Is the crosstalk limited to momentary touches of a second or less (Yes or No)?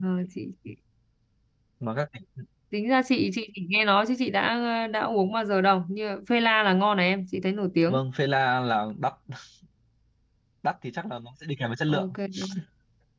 Yes